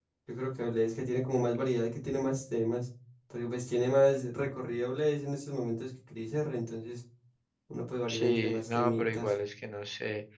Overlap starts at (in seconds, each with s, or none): 8.1 s